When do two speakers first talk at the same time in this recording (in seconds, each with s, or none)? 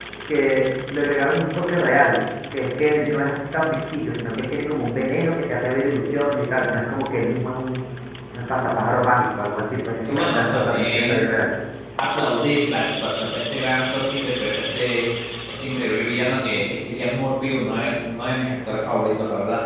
10.0 s